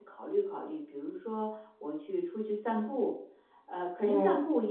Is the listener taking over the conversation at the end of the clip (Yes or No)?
No